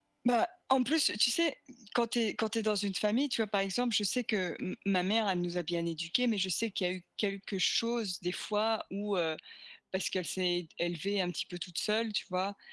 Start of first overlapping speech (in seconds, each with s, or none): none